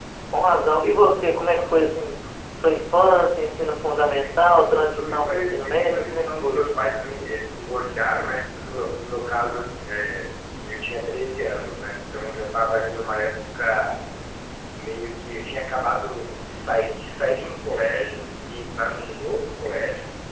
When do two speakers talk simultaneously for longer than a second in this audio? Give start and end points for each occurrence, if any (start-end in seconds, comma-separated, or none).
4.2-6.6